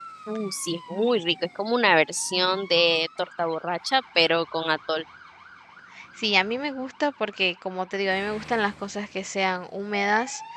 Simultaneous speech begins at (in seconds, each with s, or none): none